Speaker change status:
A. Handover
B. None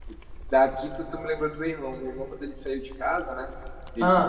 B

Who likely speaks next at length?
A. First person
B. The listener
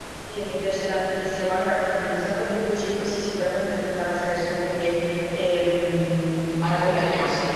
B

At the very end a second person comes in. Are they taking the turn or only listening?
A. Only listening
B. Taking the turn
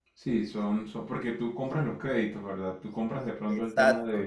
B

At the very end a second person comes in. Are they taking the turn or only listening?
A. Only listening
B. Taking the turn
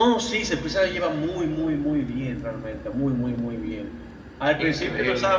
A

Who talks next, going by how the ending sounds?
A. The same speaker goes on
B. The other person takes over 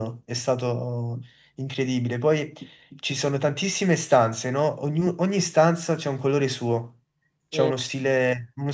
A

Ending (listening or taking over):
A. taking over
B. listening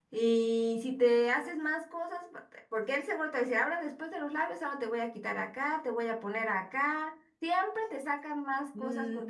A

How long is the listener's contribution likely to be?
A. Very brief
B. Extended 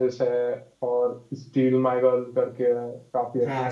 B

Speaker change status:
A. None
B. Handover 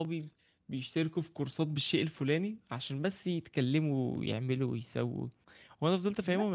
A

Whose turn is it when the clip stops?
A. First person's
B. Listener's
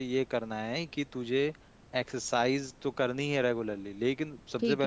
A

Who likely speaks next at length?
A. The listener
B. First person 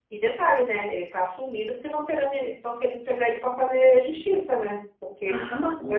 A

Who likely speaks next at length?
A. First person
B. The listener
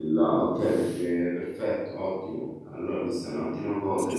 B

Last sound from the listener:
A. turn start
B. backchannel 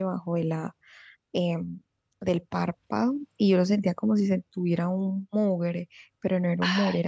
B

